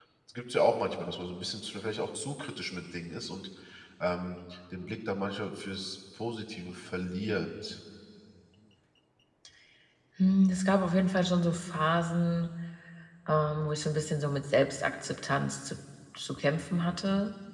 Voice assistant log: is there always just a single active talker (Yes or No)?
Yes